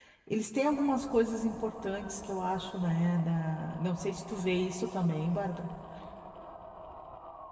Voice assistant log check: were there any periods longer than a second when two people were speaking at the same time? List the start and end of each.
none

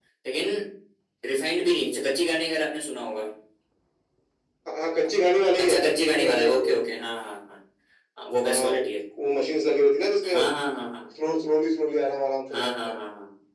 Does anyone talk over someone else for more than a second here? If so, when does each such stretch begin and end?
5.6-7.0

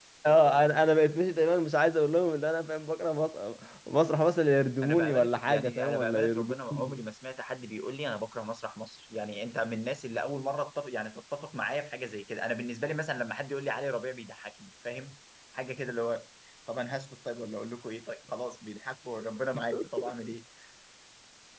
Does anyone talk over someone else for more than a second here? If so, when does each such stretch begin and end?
4.8-6.5

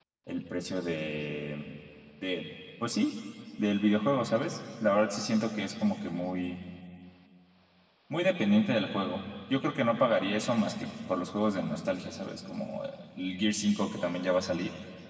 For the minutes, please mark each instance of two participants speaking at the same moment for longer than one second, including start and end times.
none

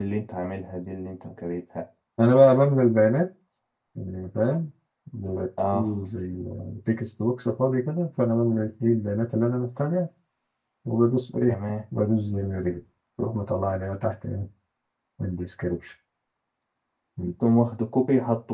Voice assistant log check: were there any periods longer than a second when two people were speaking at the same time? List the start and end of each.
none

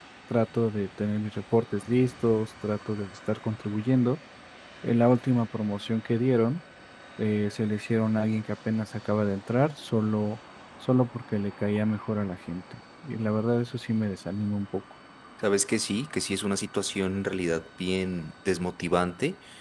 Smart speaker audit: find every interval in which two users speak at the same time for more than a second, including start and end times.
none

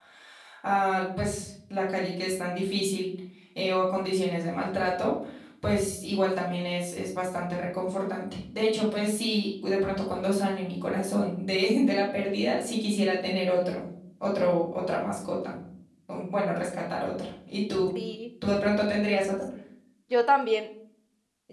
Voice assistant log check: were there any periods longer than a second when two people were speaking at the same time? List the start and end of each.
none

